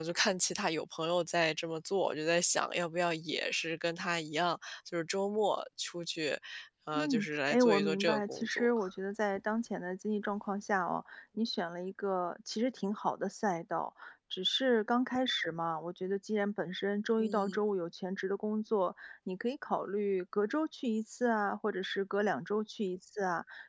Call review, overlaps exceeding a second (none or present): present